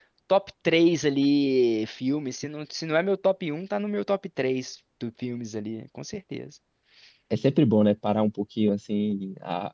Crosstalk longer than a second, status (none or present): none